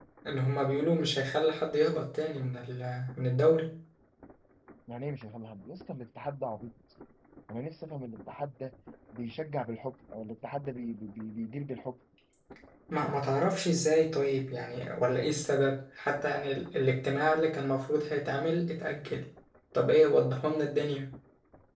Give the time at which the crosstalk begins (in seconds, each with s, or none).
none